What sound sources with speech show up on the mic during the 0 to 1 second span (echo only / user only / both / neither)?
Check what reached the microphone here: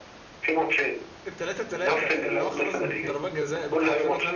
echo only